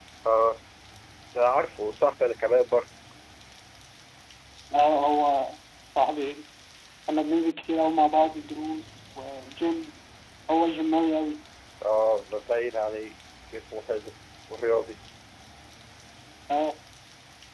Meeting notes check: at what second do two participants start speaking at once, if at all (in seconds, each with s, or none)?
none